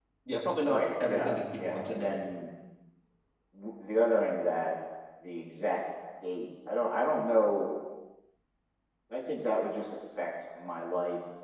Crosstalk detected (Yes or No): Yes